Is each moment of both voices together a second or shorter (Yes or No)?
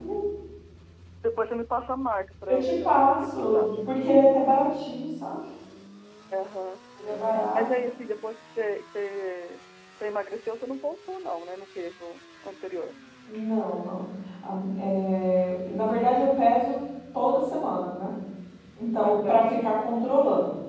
No